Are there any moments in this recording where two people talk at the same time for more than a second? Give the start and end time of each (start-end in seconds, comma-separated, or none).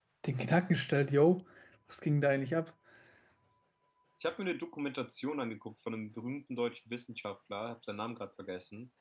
none